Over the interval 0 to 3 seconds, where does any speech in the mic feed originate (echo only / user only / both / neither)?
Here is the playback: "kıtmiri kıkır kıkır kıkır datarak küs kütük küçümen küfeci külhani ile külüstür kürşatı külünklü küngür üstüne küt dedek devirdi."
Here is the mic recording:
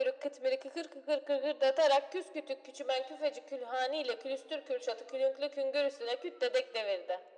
echo only